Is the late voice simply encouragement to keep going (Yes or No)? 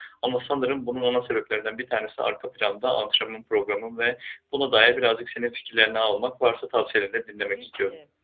No